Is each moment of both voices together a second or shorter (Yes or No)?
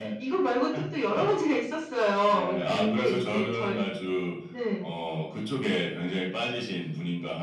No